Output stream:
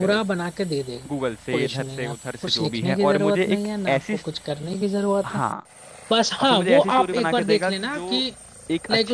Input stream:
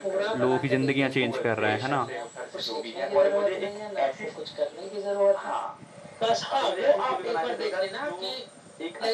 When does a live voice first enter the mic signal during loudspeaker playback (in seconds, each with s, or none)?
0.3 s